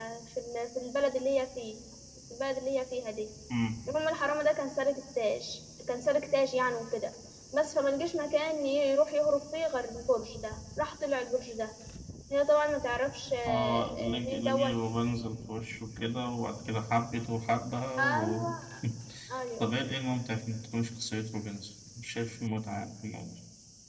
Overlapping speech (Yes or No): Yes